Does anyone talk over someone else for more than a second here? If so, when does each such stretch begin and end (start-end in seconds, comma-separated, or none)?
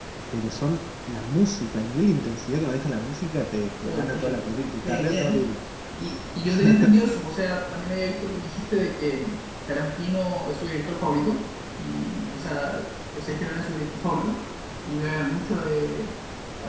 3.8-5.5